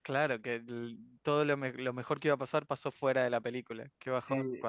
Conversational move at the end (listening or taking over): taking over